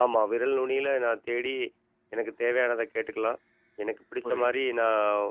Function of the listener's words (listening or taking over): listening